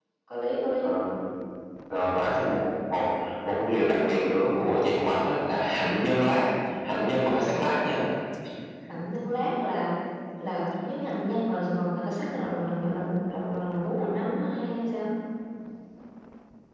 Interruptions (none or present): none